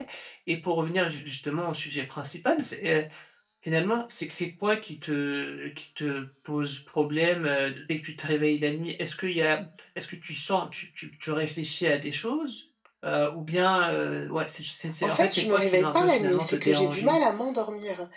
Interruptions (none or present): present